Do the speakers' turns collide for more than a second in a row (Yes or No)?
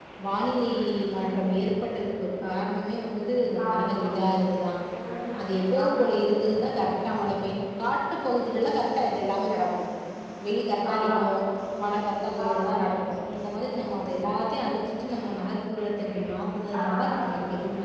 No